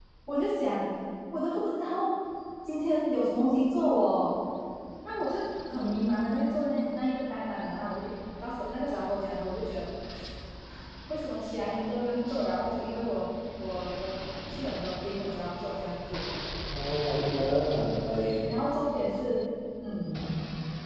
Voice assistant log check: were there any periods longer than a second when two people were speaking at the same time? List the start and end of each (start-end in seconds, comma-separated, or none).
none